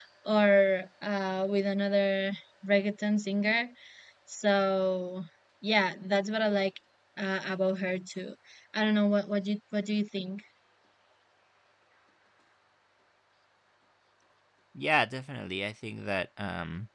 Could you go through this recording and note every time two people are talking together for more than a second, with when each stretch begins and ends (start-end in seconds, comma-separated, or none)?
none